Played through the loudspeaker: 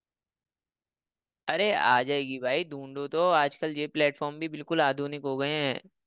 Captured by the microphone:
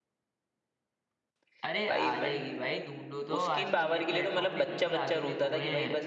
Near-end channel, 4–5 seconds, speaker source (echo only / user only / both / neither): both